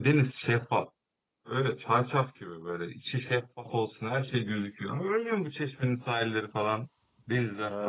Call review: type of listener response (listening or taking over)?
taking over